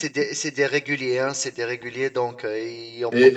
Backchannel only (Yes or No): No